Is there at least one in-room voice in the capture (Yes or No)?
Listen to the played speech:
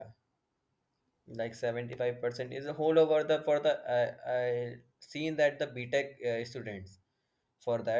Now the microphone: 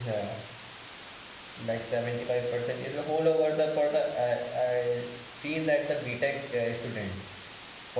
No